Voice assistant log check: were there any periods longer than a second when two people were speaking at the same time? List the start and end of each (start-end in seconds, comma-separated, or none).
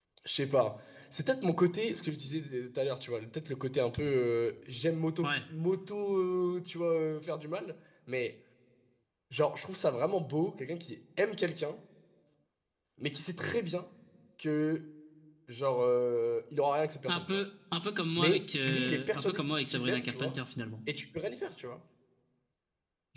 18.2-20.4